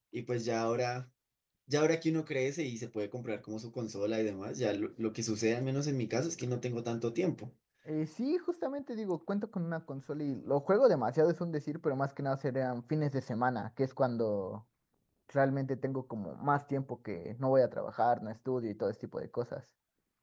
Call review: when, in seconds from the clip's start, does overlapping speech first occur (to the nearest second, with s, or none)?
none